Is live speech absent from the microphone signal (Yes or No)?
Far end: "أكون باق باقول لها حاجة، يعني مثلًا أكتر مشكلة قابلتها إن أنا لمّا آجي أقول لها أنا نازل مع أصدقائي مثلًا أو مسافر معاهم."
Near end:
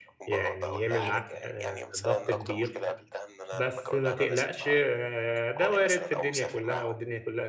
No